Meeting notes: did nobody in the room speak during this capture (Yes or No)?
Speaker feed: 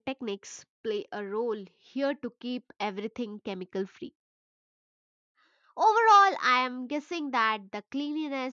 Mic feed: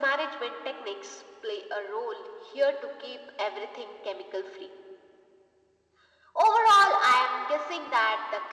Yes